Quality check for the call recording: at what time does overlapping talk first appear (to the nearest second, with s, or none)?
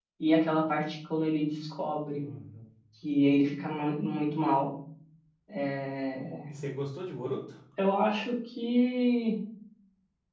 none